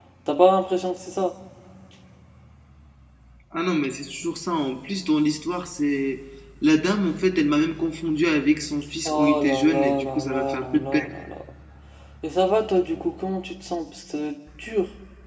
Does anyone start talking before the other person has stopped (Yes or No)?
Yes